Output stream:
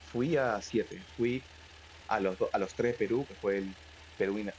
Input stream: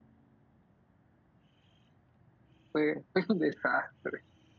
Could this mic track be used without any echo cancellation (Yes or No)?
Yes